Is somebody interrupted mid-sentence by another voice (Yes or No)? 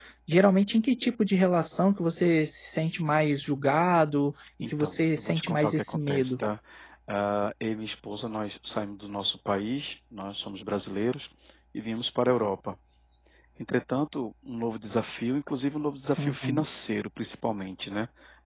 Yes